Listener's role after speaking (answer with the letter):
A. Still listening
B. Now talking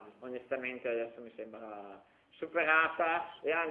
A